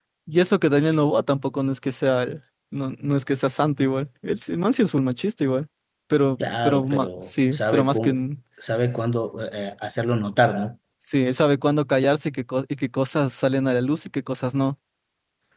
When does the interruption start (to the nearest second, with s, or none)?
7 s